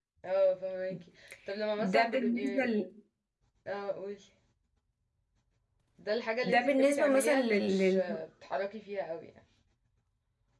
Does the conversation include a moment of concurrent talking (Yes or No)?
Yes